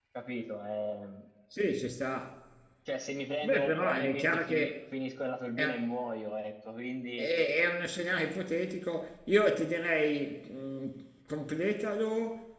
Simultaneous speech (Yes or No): Yes